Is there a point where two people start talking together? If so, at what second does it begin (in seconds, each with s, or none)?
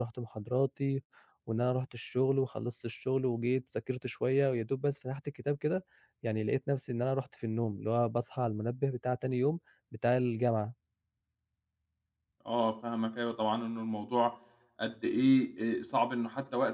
none